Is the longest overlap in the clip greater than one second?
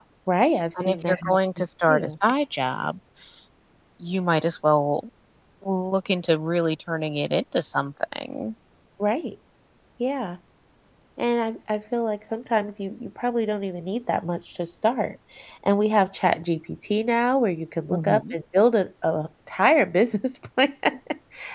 Yes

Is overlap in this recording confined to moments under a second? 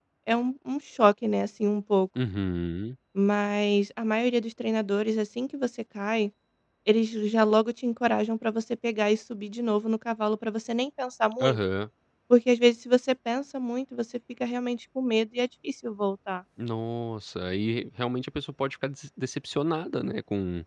Yes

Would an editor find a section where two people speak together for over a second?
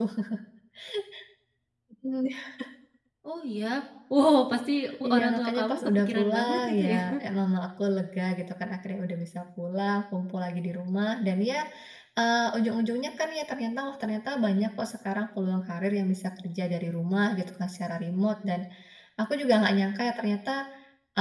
Yes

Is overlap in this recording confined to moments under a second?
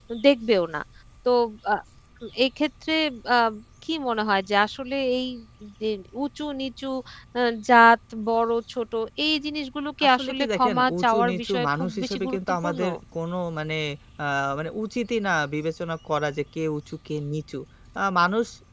No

